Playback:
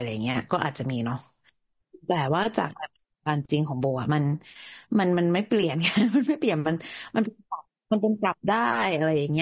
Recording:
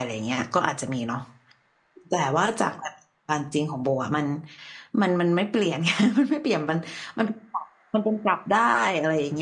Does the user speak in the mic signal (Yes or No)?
No